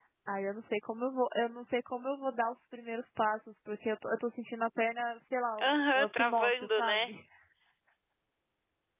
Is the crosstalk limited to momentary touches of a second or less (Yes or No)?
No